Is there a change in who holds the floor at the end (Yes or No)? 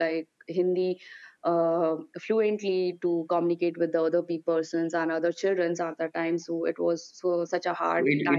Yes